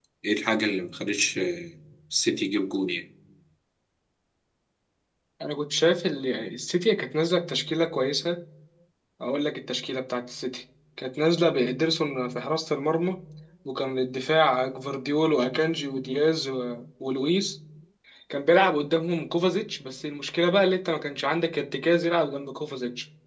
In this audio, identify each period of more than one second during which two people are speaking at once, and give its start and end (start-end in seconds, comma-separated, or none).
none